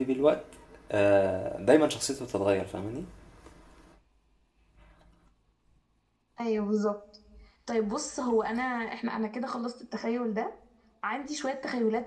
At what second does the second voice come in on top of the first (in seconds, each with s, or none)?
none